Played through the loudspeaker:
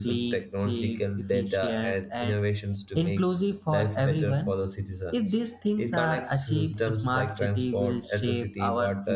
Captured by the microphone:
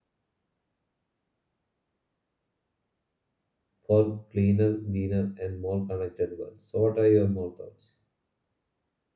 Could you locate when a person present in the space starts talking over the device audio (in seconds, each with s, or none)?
3.8 s